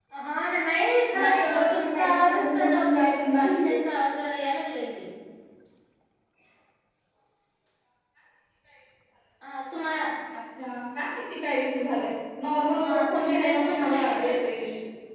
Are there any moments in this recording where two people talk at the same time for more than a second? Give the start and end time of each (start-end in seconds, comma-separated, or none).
1.2-3.5, 12.8-14.3